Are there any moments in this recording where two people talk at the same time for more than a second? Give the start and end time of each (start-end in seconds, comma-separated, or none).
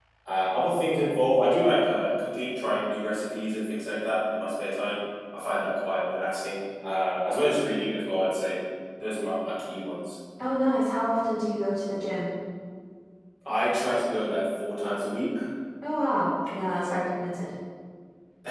none